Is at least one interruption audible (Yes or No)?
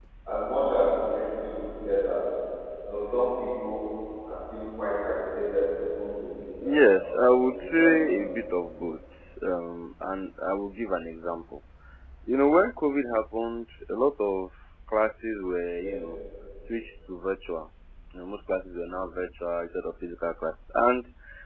Yes